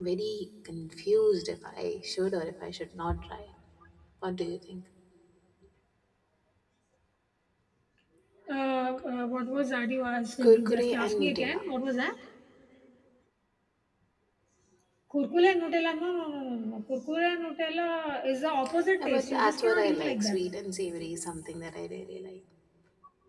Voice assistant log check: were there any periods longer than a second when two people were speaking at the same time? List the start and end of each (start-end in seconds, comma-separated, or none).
10.4-11.6, 19.0-20.4